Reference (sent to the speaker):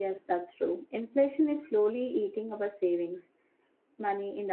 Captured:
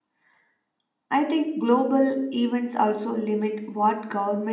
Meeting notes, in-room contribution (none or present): present